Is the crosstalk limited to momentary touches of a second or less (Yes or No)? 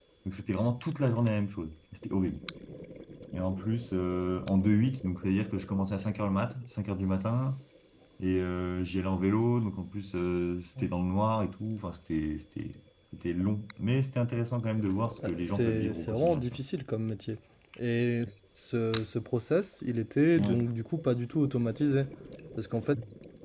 No